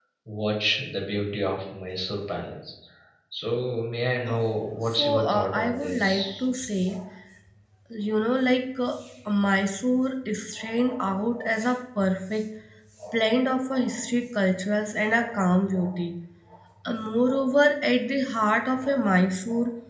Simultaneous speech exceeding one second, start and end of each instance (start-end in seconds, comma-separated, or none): 5.0-6.4